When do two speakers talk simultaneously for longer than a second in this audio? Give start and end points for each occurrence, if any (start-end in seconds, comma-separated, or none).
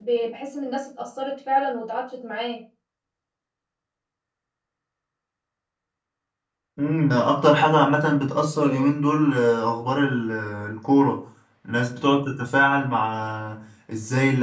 none